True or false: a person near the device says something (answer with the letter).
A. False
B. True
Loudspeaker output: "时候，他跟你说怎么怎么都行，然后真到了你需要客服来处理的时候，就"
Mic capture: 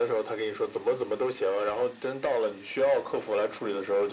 A